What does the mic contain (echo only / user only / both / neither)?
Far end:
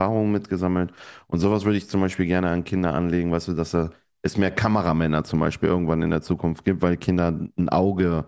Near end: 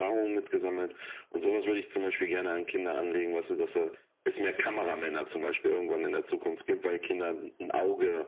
echo only